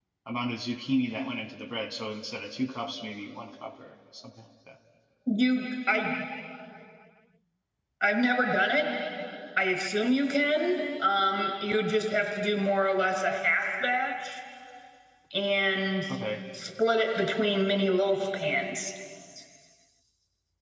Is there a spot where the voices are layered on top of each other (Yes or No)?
No